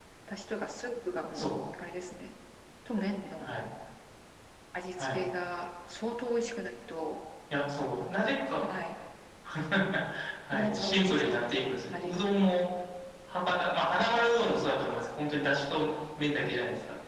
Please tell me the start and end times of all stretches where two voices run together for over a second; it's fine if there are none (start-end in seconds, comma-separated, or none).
10.5-12.3